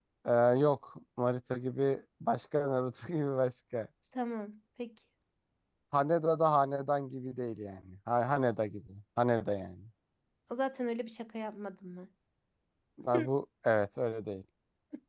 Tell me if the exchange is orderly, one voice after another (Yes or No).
Yes